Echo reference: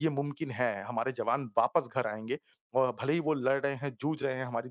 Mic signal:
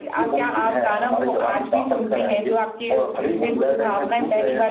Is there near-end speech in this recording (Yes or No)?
Yes